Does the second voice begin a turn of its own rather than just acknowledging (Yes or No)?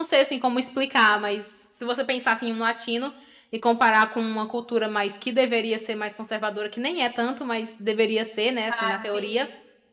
No